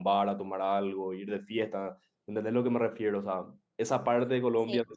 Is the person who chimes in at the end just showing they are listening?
Yes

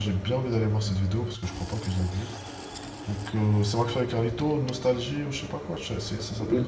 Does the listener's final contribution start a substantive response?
Yes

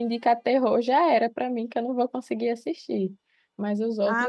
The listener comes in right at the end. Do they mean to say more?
Yes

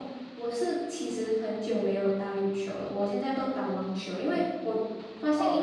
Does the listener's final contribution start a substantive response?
No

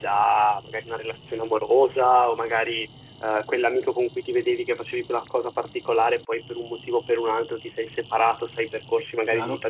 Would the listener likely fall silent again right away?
Yes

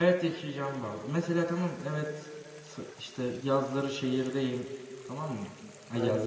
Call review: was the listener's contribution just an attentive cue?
Yes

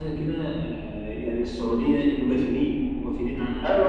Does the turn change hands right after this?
Yes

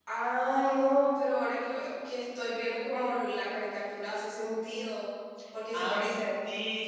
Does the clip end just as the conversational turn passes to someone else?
Yes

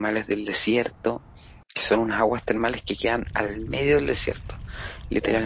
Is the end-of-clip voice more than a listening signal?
Yes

